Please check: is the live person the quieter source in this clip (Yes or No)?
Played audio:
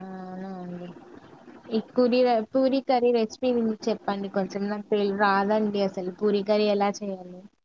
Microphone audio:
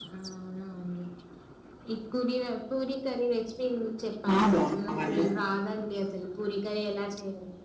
No